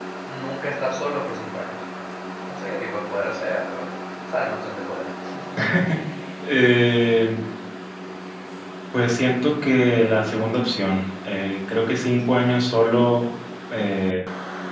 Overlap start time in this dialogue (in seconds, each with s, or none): none